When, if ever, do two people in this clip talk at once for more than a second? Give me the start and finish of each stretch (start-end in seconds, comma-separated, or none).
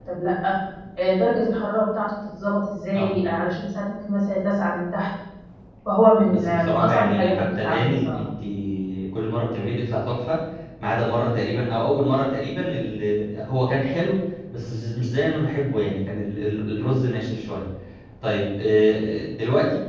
6.2-8.2